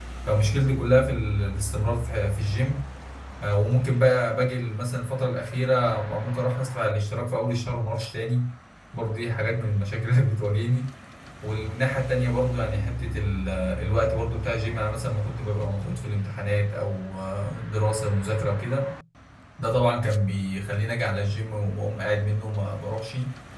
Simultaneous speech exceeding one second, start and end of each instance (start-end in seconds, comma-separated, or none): none